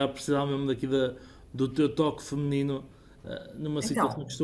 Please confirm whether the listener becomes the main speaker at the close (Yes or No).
No